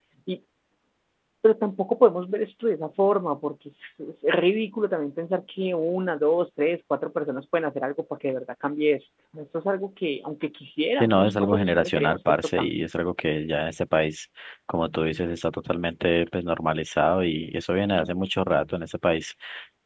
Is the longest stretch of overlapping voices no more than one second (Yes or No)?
No